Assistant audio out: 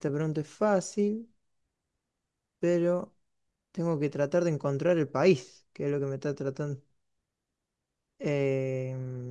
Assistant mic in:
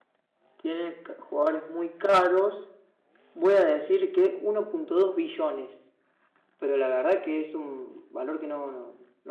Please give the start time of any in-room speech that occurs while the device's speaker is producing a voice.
0.6 s

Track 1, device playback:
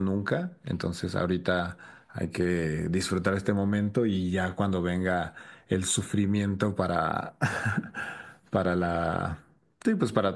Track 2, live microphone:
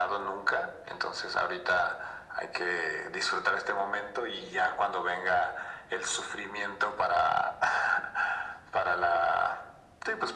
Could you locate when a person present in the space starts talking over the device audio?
none

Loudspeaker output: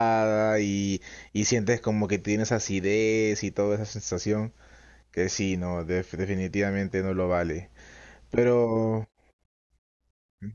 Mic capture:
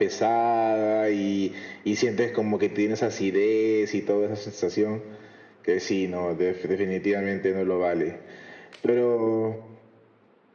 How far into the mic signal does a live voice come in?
none

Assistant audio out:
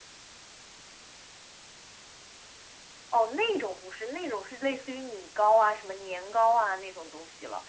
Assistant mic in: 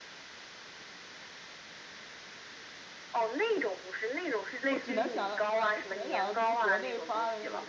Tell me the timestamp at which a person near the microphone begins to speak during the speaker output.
4.6 s

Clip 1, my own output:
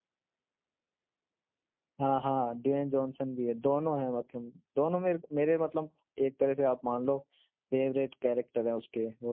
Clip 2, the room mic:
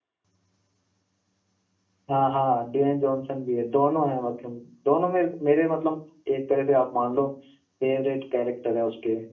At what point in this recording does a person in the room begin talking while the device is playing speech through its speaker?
none

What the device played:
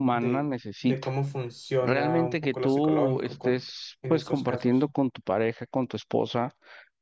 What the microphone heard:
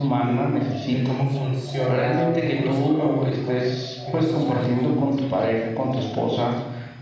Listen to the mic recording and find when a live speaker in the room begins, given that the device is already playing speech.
none

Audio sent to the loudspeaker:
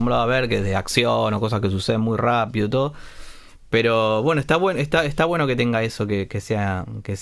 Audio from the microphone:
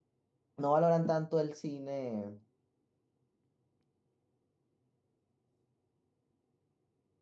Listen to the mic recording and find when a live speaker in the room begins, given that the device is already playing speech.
0.6 s

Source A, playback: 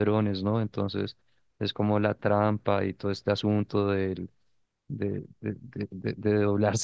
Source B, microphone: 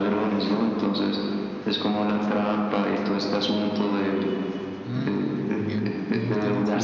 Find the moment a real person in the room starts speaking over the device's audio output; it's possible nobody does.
4.8 s

